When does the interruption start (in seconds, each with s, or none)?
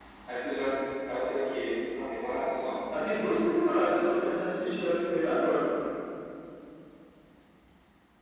none